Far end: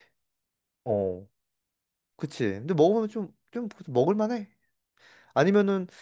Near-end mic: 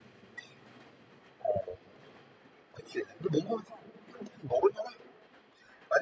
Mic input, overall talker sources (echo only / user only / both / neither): echo only